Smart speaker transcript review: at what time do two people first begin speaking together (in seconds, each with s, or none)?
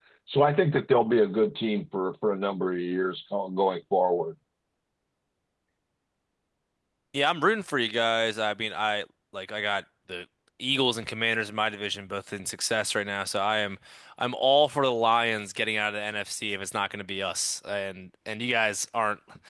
none